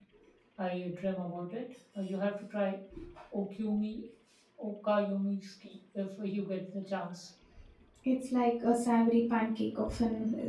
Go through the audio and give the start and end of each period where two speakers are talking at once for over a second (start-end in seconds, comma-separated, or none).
none